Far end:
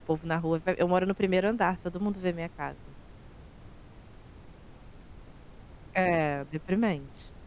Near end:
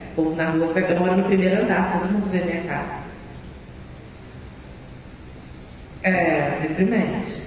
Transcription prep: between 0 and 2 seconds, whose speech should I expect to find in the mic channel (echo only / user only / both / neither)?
echo only